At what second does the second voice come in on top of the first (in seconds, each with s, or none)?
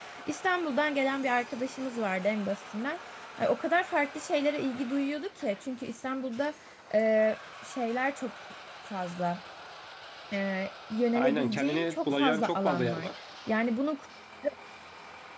11.1 s